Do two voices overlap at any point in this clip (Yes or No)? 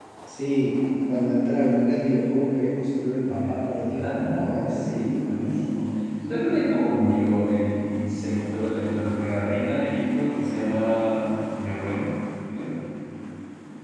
Yes